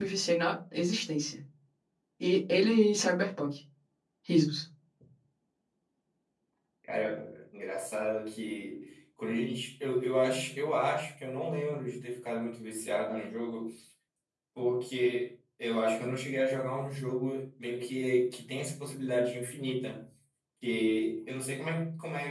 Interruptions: none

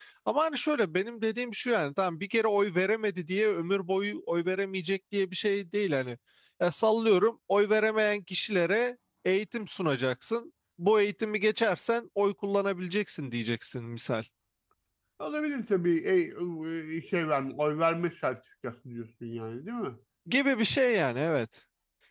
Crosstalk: none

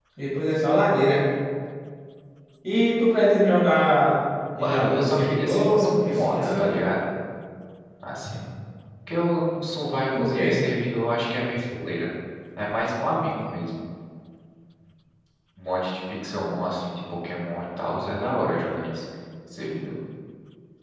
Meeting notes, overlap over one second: present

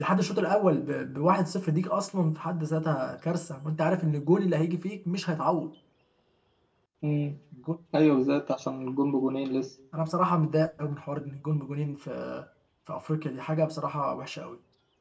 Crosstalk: none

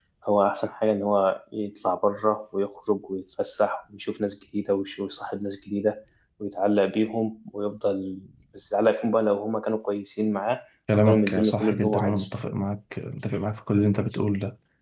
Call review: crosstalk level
present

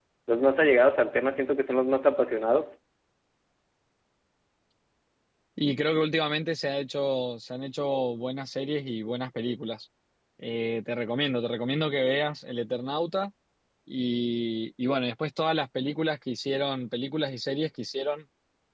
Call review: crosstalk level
none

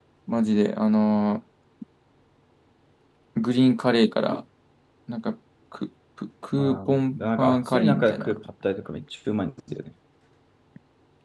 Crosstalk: present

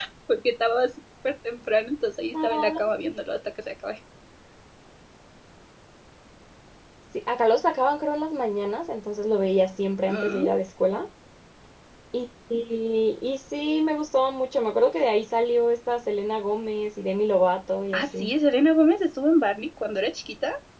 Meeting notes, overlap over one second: none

